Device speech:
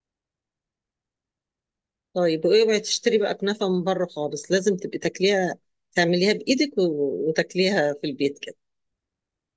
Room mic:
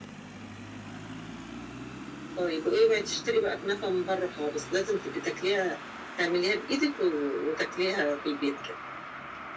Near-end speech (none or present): none